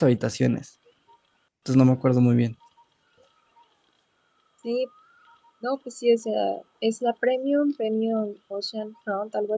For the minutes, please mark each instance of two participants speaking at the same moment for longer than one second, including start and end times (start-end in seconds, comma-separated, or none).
none